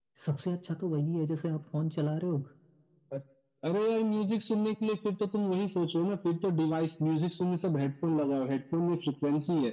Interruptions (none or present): none